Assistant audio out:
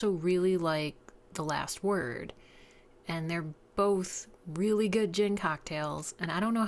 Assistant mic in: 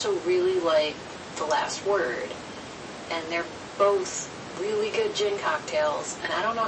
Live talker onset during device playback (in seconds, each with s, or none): none